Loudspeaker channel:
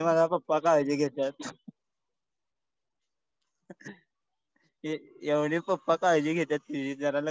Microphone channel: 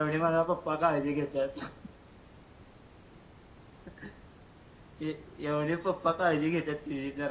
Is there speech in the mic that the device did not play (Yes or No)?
No